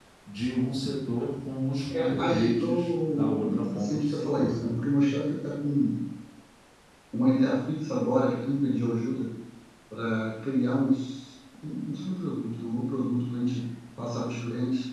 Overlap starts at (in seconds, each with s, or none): 1.9 s